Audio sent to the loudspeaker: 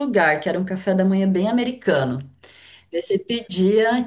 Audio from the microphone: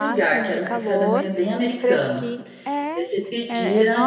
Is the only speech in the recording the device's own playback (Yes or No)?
No